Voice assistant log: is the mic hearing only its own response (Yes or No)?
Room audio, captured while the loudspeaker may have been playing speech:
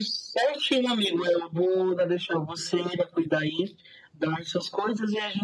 Yes